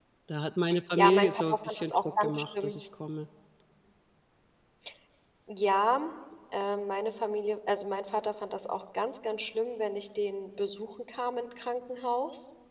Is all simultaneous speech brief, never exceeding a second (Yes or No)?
No